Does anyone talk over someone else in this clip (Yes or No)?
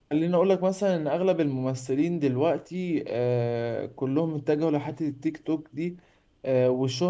No